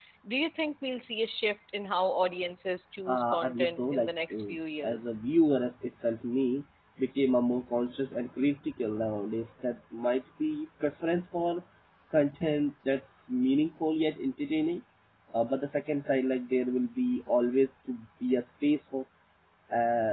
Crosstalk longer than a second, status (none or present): present